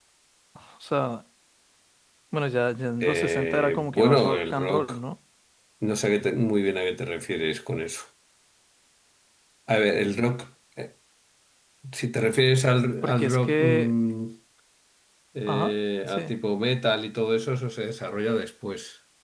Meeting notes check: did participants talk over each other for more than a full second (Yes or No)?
Yes